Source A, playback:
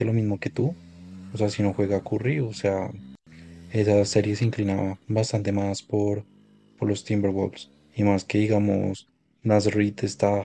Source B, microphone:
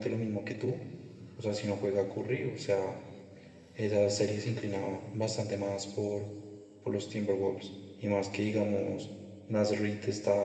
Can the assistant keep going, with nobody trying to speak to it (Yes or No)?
Yes